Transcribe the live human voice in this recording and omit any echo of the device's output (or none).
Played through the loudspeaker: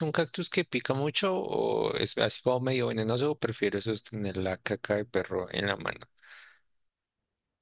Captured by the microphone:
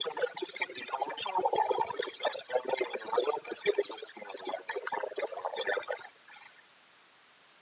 none